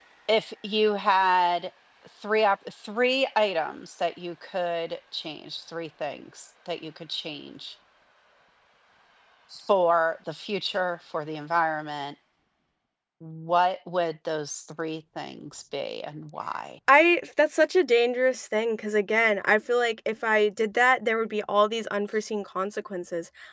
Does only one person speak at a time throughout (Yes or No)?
Yes